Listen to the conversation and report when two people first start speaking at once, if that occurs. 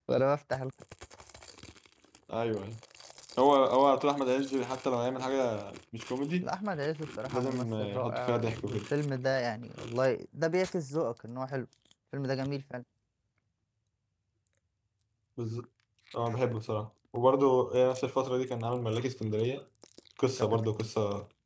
7.3 s

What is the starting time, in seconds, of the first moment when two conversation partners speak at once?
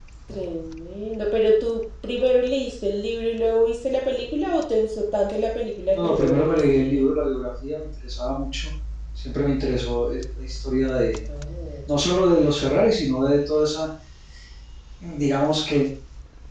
5.9 s

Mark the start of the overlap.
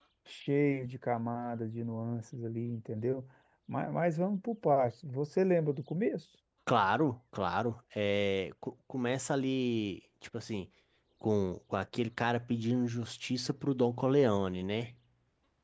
none

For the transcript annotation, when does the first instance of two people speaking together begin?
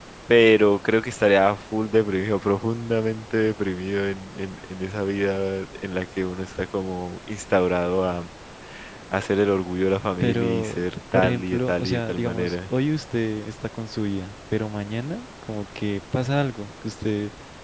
10.2 s

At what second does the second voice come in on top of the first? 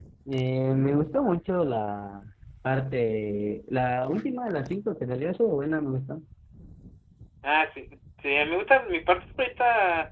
none

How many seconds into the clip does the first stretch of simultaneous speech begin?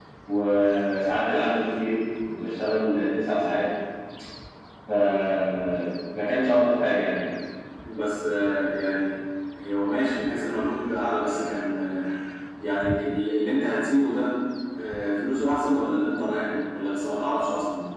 none

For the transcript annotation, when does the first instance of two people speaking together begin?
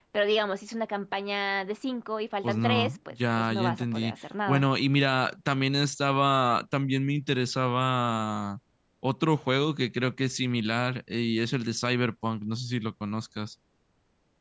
2.4 s

